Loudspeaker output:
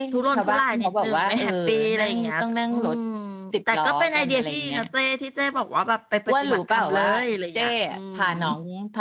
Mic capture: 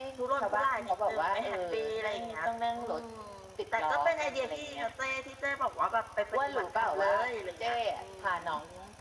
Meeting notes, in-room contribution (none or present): none